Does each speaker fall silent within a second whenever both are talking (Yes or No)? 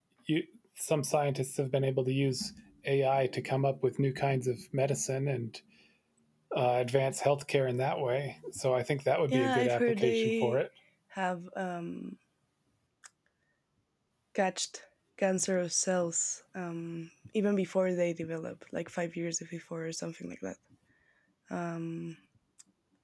No